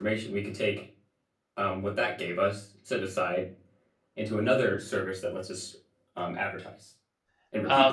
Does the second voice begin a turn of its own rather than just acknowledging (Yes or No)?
Yes